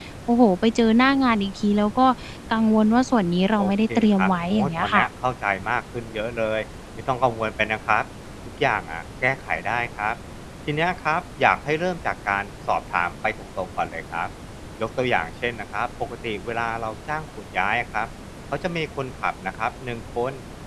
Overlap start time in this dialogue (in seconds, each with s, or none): 3.6 s